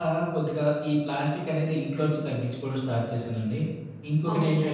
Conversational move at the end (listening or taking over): taking over